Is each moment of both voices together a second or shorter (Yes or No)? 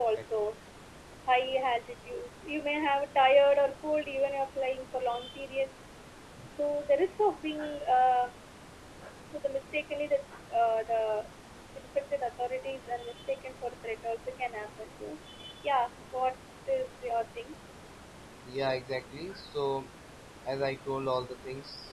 Yes